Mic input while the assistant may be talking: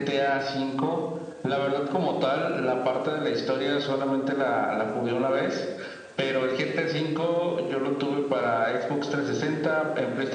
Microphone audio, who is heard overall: echo only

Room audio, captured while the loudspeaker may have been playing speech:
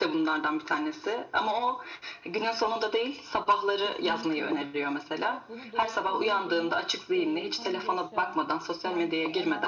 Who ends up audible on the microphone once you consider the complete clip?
both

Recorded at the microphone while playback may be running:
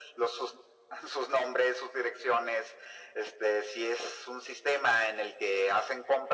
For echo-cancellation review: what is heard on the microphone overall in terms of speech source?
echo only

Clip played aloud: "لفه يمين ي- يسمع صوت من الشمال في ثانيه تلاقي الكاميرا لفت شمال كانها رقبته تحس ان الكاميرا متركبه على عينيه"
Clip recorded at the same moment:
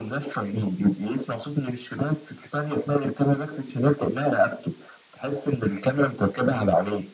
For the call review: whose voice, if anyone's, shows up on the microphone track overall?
echo only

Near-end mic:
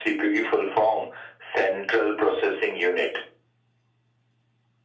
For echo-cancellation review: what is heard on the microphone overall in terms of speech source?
echo only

